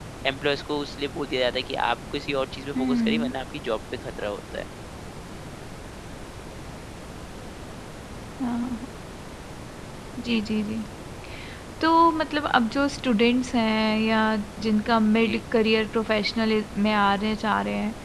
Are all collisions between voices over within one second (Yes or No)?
Yes